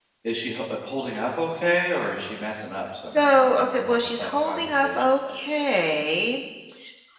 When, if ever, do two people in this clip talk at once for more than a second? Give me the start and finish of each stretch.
3.0-6.0

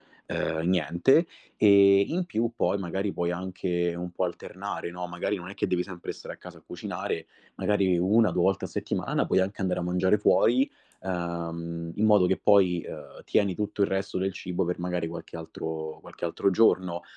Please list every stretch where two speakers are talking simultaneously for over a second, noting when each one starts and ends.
none

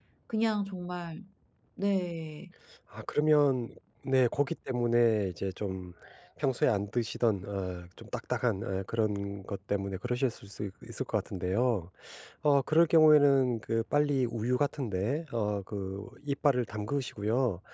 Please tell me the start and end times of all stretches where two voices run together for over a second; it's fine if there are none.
none

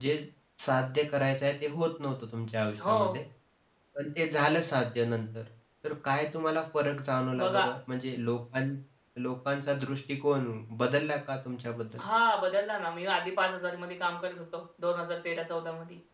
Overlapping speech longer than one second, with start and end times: none

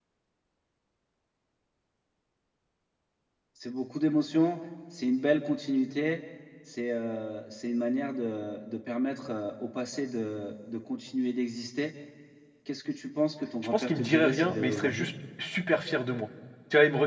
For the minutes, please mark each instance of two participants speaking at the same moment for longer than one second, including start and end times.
13.6-15.1

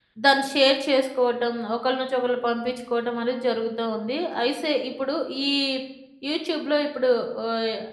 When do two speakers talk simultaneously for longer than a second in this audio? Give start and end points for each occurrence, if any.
none

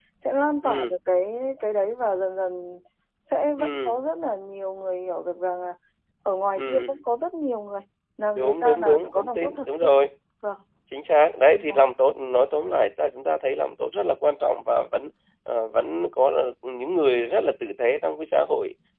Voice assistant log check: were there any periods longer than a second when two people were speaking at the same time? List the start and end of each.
8.4-9.9

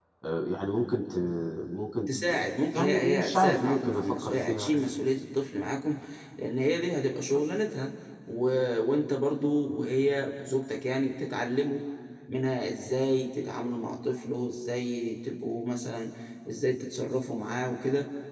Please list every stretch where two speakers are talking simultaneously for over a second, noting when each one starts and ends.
2.1-4.7

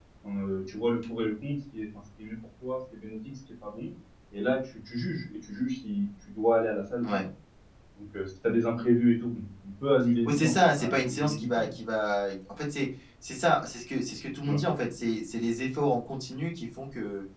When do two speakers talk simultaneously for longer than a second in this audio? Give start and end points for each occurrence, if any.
10.2-11.7

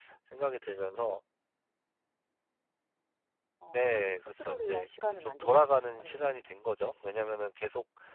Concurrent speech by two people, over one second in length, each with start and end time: 3.7-6.5

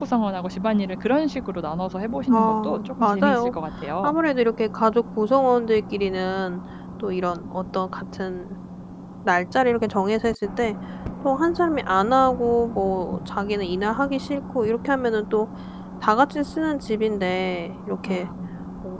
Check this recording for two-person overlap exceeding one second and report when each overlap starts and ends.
2.3-3.5

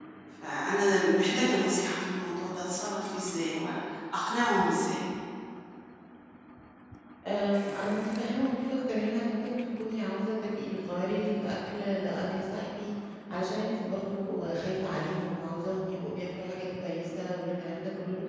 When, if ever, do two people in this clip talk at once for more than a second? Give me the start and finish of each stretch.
none

